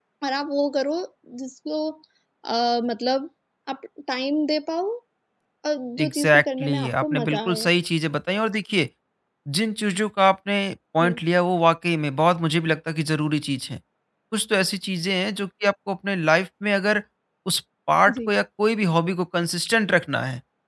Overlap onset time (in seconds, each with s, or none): 6.0 s